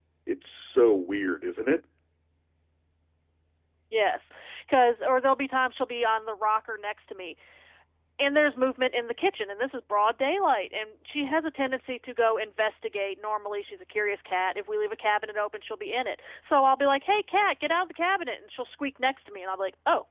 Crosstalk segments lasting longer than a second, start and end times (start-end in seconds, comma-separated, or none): none